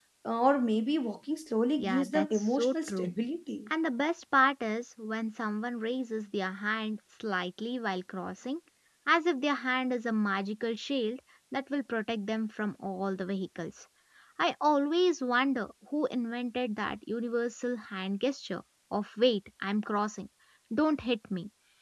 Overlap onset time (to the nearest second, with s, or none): 2 s